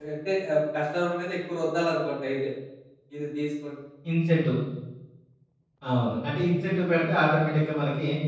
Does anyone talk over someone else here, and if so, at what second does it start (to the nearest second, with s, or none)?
none